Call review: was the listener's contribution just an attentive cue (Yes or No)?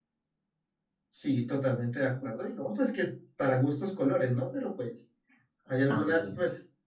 Yes